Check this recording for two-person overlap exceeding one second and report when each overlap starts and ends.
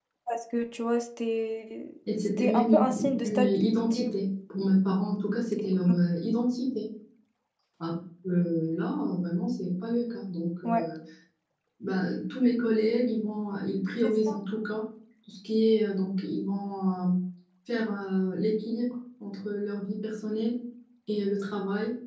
2.2-4.1

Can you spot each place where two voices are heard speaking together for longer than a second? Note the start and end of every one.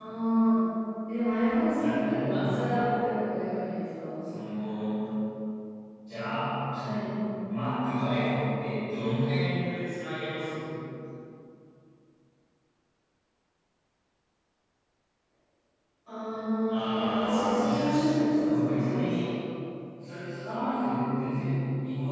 1.8-3.1, 16.7-19.1

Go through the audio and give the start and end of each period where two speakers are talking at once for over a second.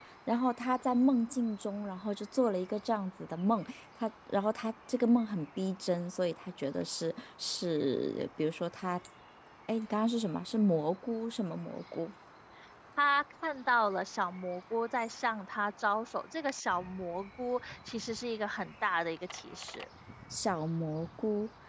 none

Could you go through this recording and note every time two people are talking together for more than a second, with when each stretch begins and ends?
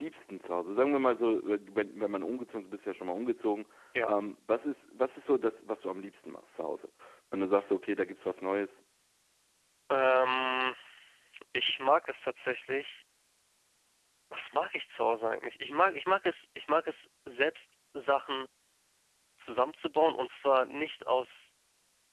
none

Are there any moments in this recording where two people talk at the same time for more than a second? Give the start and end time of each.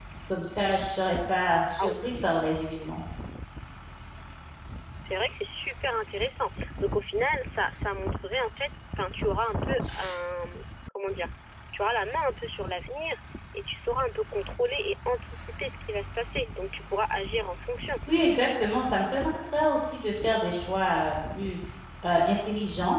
none

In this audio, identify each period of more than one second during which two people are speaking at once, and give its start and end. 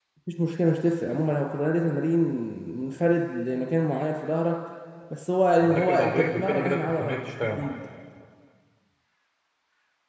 5.6-7.8

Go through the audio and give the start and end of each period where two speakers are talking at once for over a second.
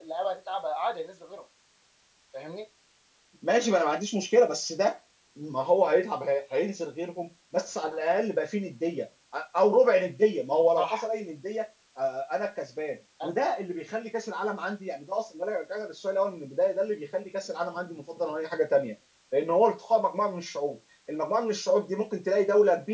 none

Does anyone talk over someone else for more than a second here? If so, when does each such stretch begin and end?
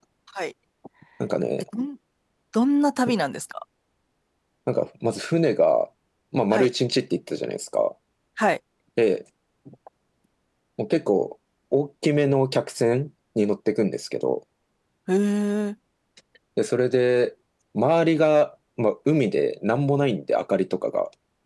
none

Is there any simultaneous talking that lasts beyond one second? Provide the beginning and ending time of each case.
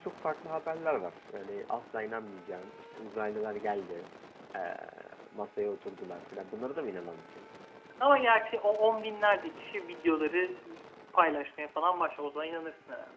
none

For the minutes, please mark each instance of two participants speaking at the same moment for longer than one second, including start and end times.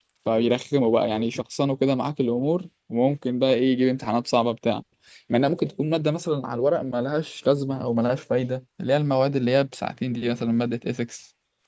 none

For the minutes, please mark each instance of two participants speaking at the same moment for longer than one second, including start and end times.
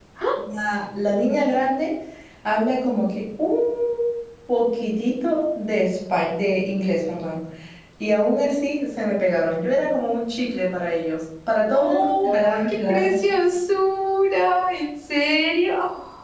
11.7-13.1

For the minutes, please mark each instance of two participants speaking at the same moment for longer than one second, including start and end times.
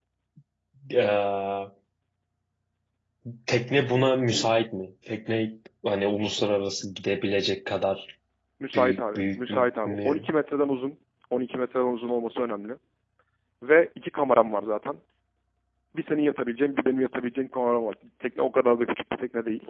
8.7-10.3

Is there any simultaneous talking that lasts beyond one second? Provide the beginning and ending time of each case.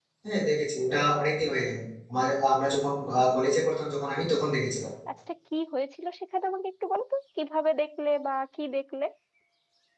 none

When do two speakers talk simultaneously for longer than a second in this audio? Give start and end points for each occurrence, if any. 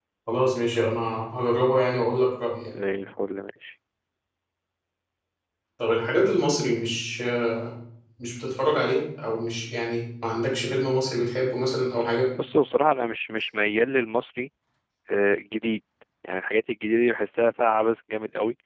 none

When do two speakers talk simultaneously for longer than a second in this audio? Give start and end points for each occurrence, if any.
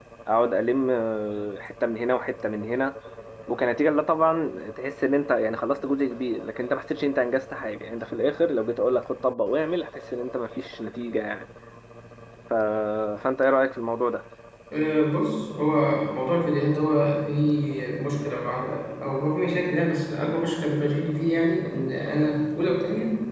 none

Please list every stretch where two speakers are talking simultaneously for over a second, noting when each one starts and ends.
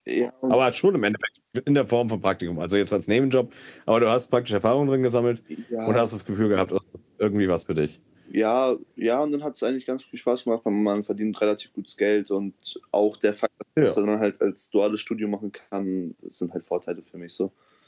none

